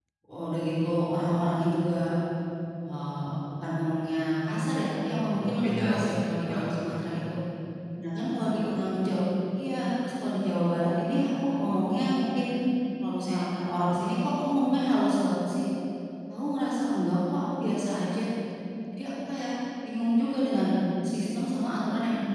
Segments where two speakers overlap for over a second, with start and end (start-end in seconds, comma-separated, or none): 5.3-7.0